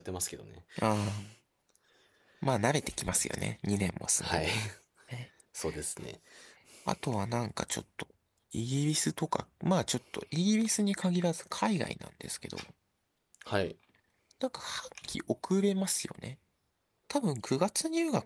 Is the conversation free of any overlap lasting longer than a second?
Yes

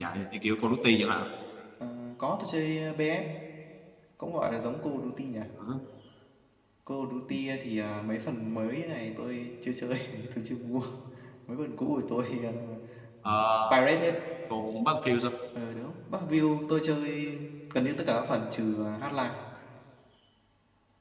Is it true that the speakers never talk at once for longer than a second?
Yes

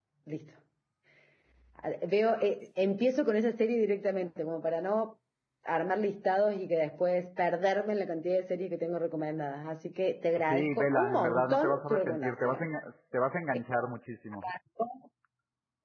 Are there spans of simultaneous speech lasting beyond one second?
Yes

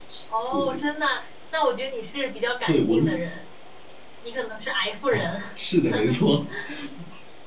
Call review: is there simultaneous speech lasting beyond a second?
No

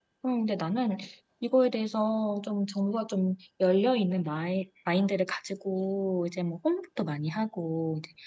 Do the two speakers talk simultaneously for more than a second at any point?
No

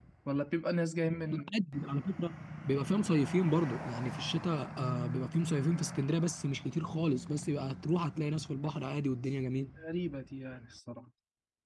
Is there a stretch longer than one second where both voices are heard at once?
No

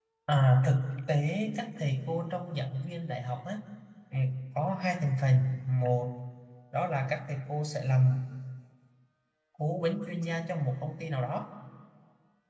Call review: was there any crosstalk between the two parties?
No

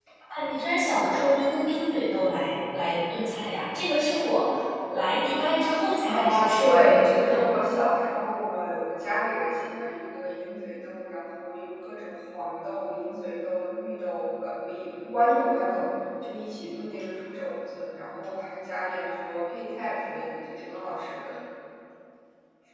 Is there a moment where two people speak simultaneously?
Yes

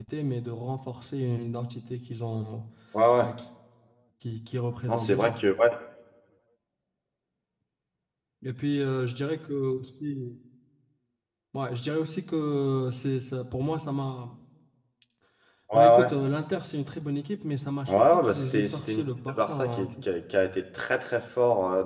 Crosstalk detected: Yes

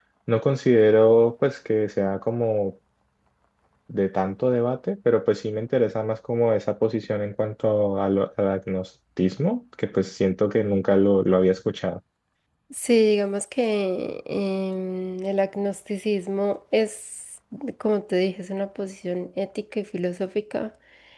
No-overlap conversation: Yes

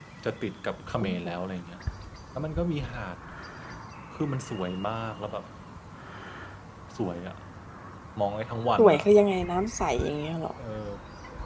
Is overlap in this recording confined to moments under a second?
Yes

